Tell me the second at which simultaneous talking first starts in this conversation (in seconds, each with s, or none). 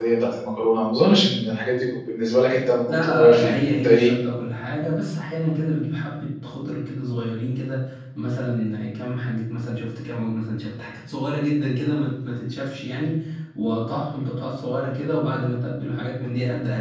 2.9 s